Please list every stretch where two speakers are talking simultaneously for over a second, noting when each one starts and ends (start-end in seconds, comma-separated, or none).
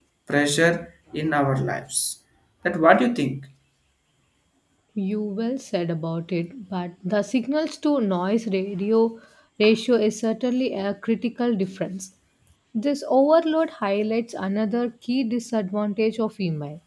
none